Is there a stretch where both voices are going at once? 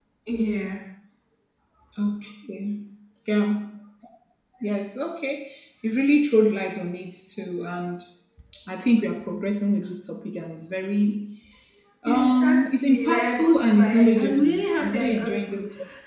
Yes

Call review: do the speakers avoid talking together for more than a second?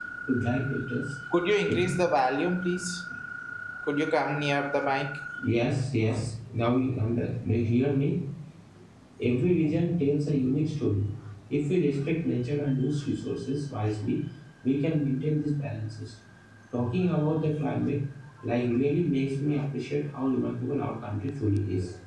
Yes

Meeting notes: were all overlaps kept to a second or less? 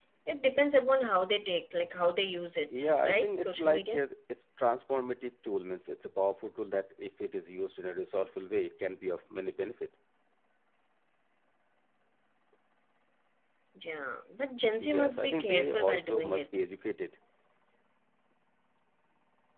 No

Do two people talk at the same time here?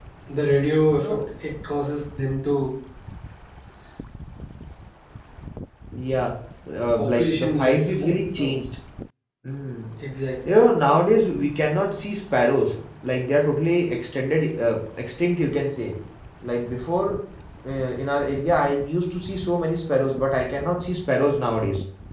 Yes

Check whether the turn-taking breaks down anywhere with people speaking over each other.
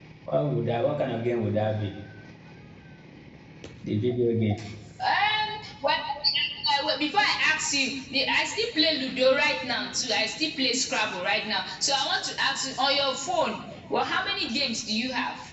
No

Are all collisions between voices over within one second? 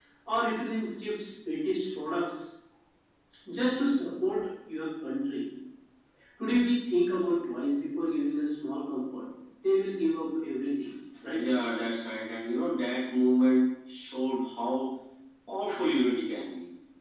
Yes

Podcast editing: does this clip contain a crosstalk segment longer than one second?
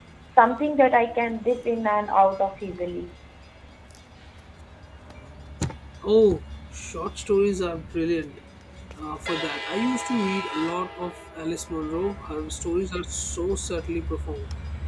No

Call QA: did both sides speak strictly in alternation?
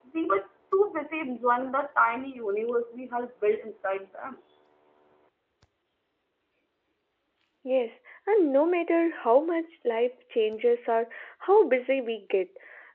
Yes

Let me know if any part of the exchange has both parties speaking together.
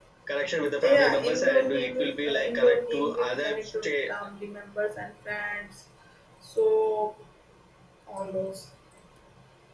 Yes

